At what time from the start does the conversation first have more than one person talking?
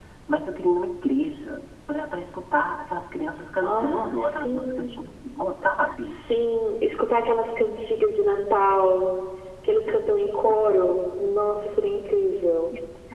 4 s

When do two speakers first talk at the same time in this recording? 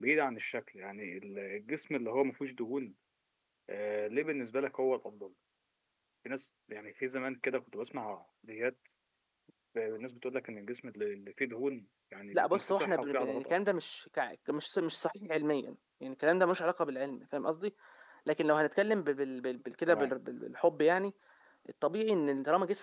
12 s

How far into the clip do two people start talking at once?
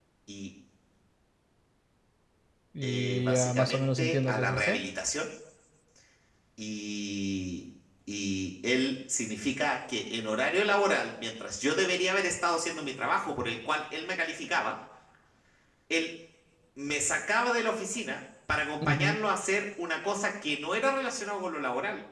3 s

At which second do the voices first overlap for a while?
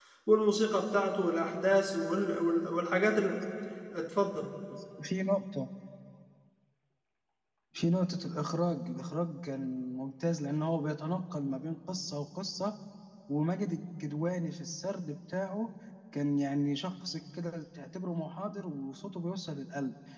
none

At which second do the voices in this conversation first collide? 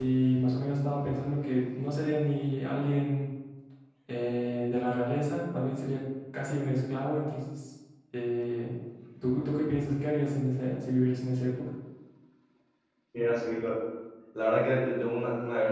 none

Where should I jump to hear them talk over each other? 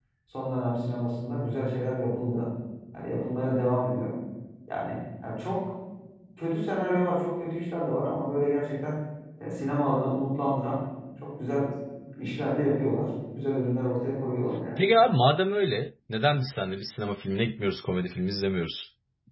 none

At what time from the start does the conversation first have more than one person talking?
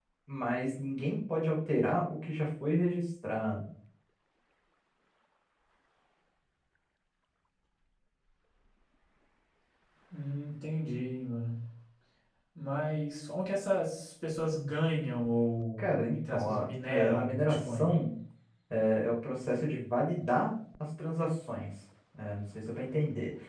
16 s

